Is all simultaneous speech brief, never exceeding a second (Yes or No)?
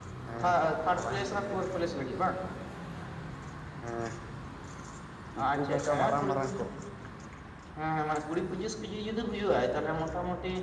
No